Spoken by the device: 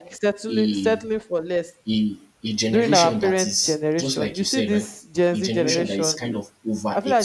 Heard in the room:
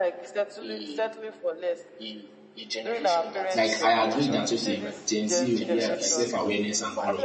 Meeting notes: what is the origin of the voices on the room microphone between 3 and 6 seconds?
both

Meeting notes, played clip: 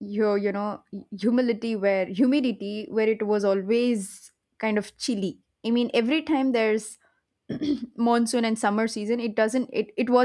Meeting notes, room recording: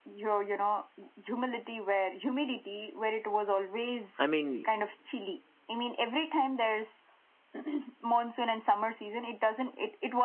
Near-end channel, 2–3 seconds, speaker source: echo only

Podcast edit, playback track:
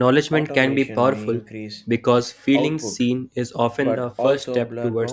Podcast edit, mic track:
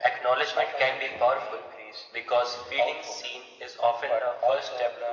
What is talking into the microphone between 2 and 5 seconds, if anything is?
echo only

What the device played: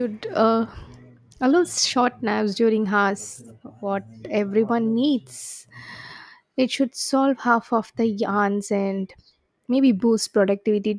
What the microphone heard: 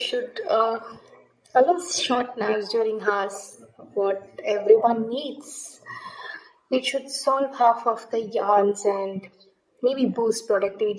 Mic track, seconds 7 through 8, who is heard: echo only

